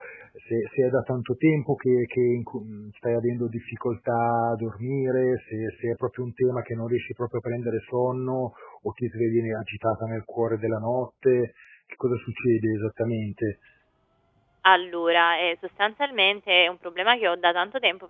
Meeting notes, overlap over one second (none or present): none